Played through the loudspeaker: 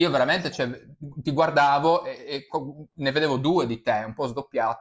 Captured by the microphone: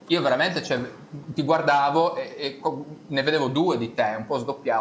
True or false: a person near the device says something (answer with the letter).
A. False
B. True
A